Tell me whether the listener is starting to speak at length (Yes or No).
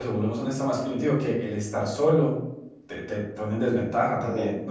Yes